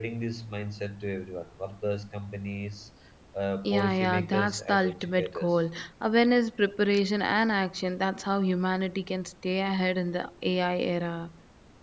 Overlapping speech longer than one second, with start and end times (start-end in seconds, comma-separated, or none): 3.6-5.5